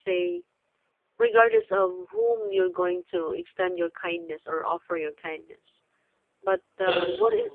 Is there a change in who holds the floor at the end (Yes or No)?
No